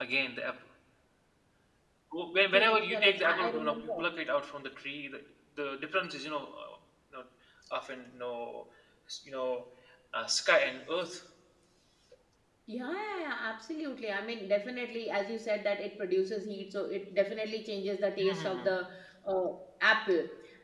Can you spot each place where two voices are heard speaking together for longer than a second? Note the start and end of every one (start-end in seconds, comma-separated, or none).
2.5-4.1